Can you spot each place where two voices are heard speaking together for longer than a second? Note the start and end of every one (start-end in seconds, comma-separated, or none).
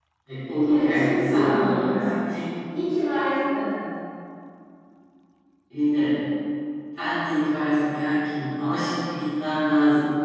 0.7-2.1